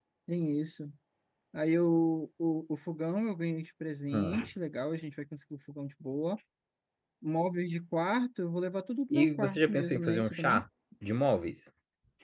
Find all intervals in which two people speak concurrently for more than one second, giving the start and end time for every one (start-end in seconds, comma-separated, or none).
9.1-10.4